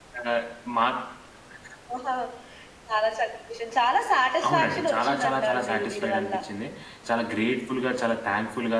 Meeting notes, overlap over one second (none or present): present